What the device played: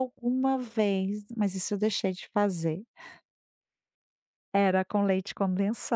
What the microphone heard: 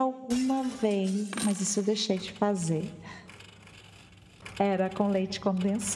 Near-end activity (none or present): none